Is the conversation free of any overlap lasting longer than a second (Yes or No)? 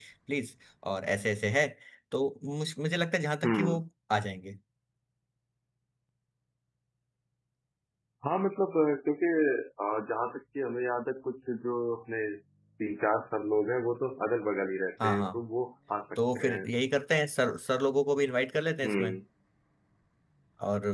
Yes